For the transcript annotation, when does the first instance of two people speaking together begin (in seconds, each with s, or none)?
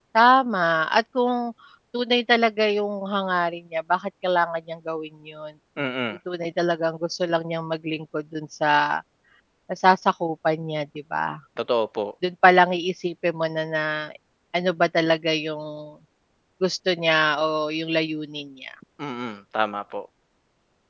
none